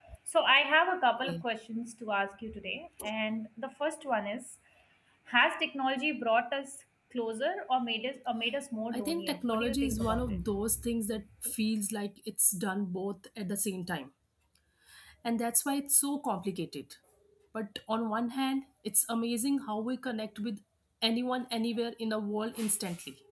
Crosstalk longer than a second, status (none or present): present